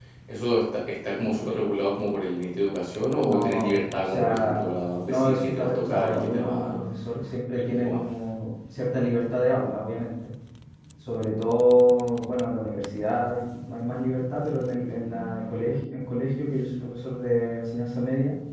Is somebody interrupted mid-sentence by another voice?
Yes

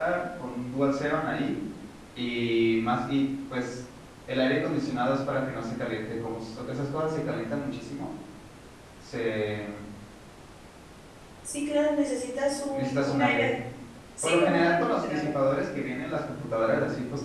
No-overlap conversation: No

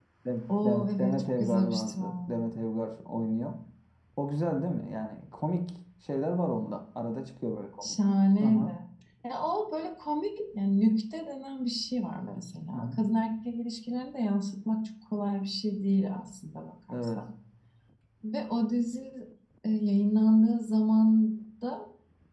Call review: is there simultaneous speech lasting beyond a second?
Yes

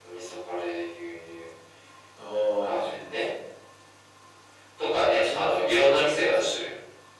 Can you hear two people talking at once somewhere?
Yes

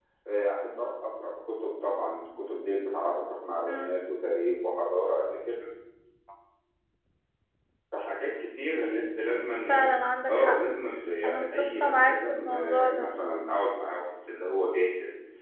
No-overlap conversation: No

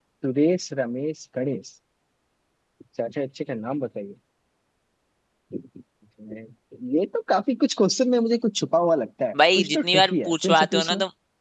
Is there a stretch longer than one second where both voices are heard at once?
Yes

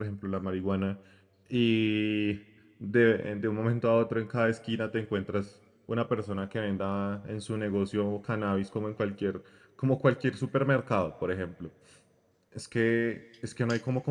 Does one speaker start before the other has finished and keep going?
No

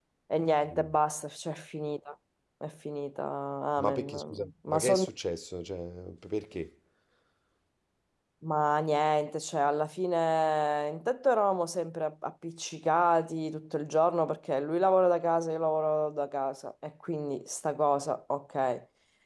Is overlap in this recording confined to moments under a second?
No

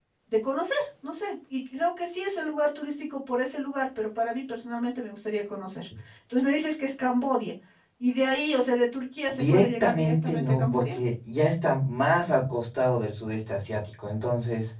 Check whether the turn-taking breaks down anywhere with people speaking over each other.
Yes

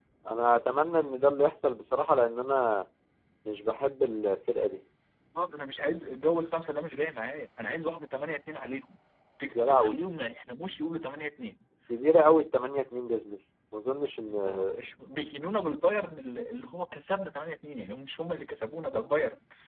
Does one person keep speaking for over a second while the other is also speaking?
No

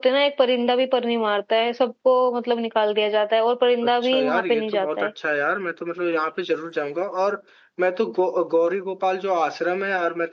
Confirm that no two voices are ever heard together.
No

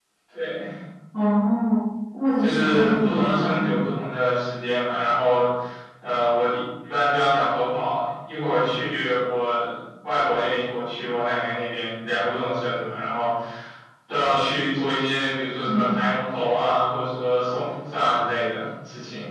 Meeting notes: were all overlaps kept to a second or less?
No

